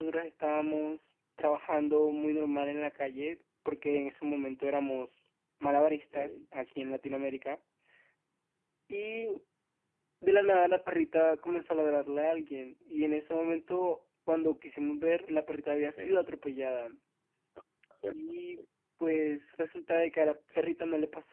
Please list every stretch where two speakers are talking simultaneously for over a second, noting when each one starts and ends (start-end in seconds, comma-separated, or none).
none